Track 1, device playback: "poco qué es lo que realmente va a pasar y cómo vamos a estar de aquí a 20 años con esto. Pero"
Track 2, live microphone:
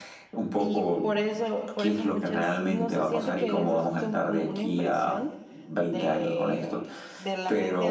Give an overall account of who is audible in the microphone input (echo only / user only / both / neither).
both